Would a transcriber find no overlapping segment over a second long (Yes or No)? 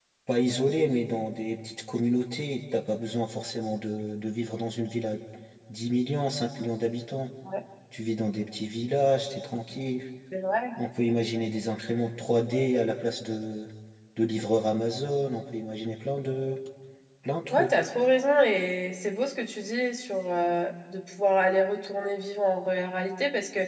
Yes